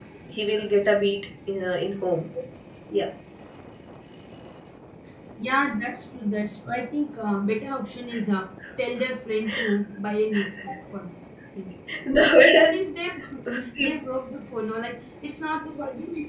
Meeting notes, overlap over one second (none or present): none